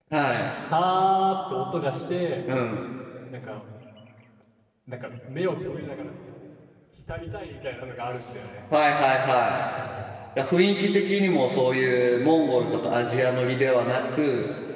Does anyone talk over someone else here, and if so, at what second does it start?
none

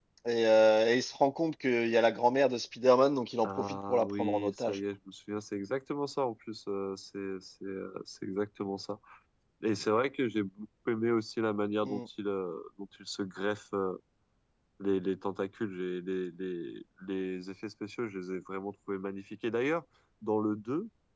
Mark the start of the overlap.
3.4 s

